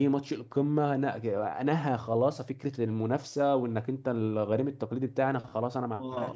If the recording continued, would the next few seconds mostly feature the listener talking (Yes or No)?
Yes